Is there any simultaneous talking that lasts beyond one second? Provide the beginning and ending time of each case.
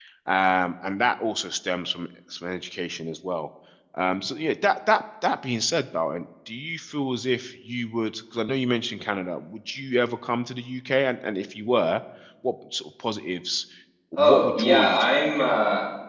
14.2-15.5

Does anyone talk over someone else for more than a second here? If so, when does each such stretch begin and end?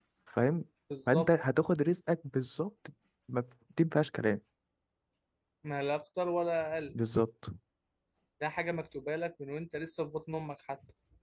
none

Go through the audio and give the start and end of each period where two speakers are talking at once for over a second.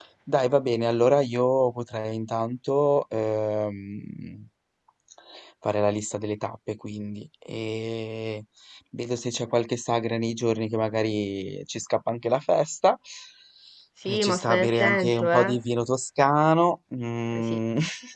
14.1-15.6

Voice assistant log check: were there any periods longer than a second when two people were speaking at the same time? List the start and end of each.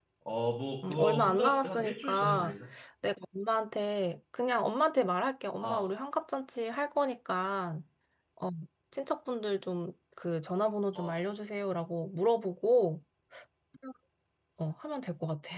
0.9-2.5

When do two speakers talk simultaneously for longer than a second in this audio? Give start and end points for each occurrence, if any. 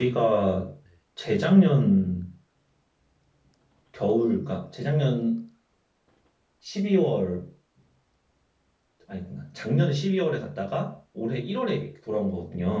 none

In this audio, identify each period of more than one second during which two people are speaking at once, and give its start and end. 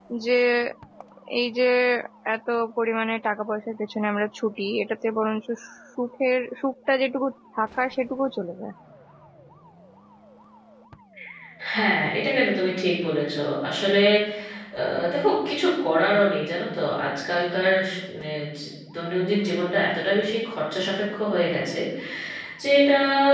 none

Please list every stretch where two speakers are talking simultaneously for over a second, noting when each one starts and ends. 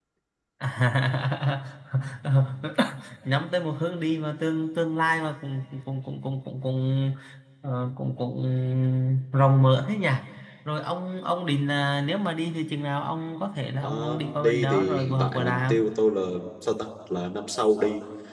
13.8-15.9

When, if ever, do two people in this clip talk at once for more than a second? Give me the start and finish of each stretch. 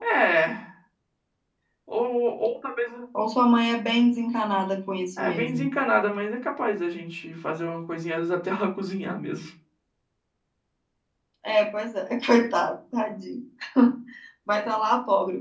none

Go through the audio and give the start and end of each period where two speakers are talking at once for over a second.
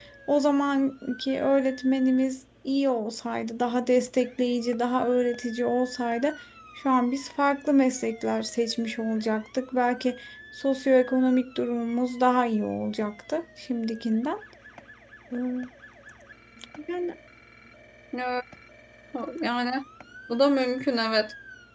none

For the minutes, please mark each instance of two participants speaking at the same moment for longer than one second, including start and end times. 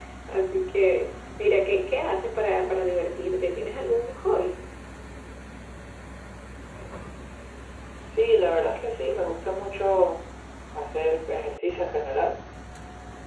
none

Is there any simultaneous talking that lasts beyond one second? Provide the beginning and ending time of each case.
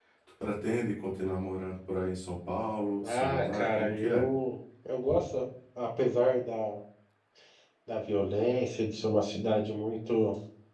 3.0-4.2

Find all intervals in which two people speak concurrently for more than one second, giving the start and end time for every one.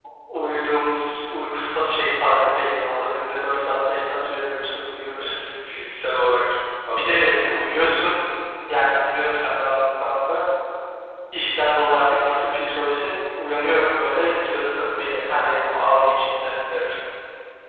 none

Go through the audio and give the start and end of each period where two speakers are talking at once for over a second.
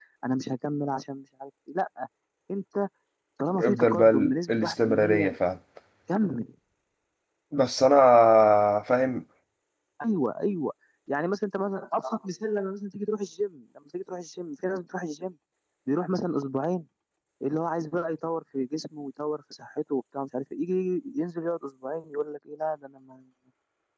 3.6-5.4

